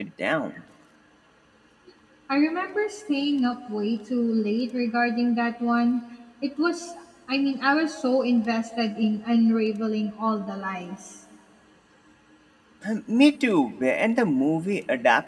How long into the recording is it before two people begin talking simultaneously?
none

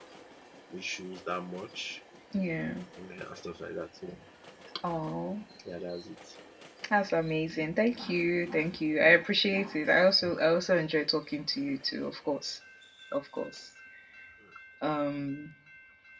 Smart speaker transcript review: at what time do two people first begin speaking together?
none

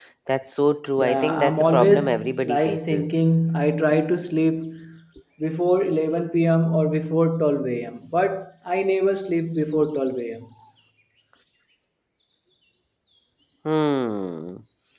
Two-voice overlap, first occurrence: 1.0 s

